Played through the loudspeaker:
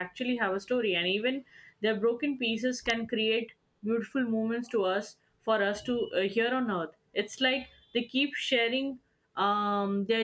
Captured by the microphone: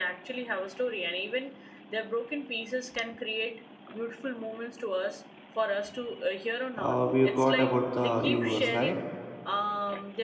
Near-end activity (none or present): present